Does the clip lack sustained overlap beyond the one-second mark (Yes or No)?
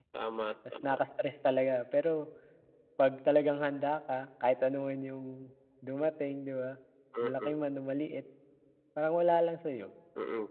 Yes